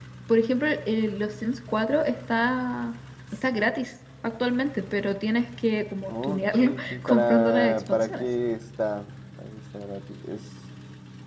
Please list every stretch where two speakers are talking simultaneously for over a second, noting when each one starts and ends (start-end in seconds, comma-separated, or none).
6.1-8.2